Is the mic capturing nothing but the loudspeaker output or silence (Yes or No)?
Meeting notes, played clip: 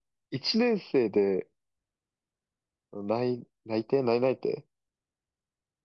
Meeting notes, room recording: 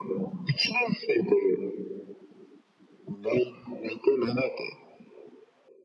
Yes